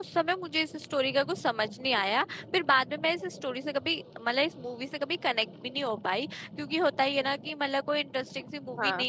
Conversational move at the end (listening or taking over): listening